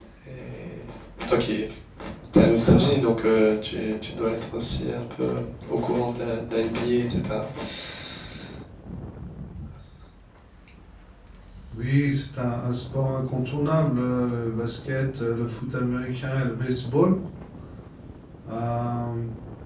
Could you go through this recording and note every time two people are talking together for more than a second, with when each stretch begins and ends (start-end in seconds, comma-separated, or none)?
none